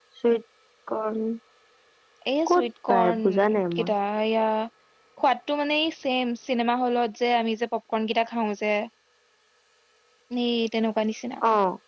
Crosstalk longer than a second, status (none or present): present